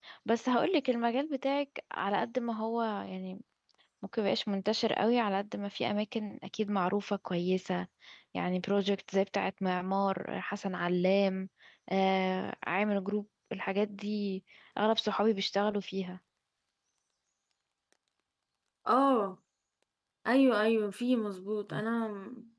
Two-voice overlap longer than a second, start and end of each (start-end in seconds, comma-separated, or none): none